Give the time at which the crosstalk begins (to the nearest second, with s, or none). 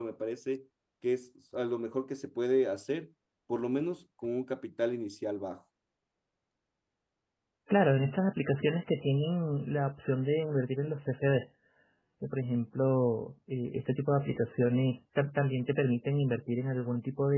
none